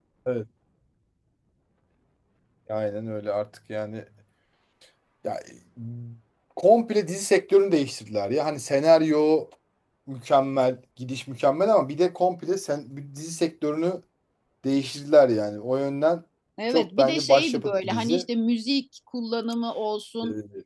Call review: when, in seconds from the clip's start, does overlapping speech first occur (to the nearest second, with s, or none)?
17 s